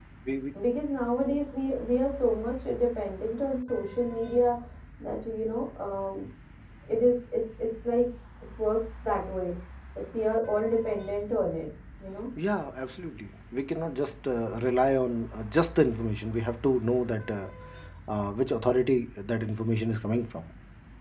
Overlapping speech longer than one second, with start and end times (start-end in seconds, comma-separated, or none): none